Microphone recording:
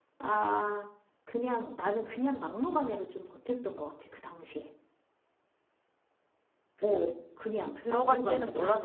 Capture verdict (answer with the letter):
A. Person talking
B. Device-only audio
A